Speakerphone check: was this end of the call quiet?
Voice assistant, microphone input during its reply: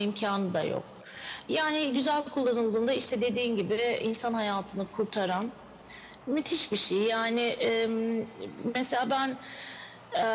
Yes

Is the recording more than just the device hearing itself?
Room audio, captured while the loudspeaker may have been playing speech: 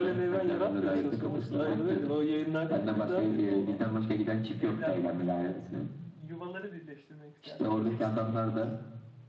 Yes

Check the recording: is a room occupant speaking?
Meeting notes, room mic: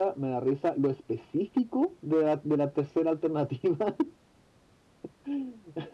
Yes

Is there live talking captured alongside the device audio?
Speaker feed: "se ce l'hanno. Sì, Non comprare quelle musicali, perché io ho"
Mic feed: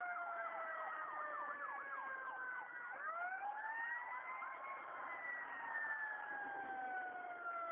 No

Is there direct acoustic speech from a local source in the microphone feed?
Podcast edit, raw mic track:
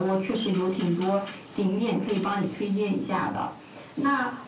No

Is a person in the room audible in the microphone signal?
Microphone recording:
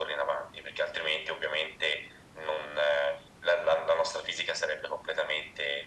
No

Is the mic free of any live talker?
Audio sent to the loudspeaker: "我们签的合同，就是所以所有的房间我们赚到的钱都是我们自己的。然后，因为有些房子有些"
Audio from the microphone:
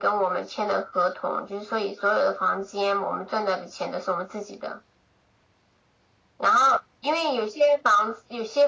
Yes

